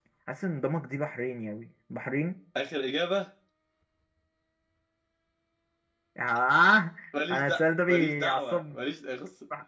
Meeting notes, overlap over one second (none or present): present